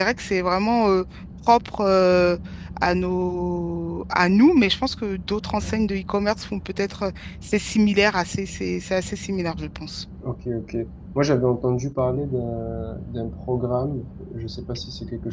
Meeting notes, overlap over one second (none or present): none